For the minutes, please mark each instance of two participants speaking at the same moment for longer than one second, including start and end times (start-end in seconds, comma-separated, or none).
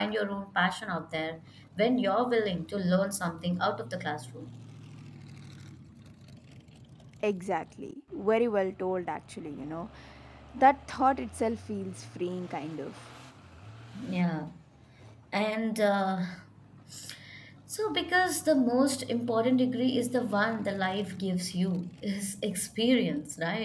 none